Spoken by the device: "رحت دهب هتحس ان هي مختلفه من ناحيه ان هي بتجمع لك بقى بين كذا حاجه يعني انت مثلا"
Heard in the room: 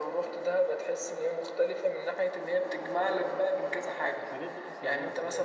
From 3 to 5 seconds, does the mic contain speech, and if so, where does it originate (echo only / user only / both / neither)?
both